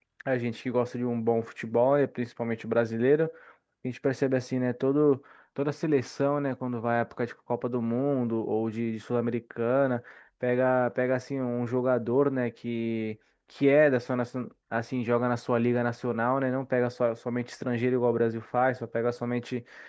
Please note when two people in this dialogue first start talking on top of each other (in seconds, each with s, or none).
none